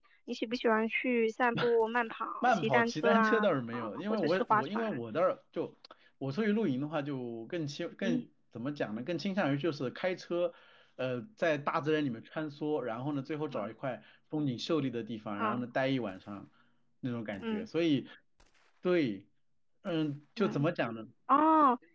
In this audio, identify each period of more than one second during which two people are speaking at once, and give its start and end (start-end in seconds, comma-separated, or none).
2.4-5.0